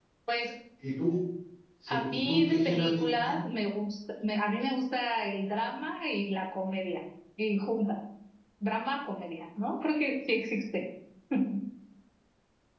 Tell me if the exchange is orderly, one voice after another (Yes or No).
No